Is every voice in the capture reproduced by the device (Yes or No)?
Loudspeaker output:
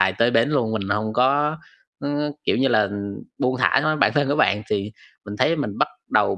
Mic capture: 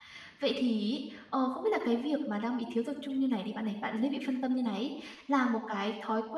No